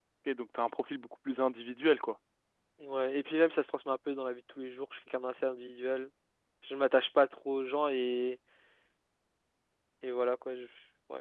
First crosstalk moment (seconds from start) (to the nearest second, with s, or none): none